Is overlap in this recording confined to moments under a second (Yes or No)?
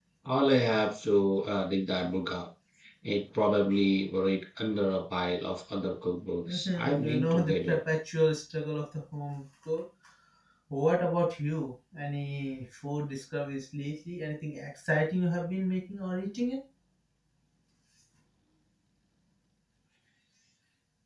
No